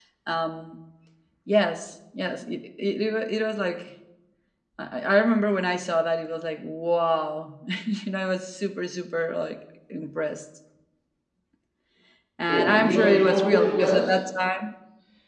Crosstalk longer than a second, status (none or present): present